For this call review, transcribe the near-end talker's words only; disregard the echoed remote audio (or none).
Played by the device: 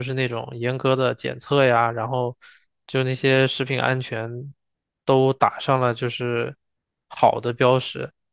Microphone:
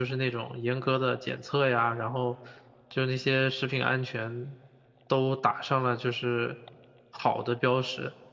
none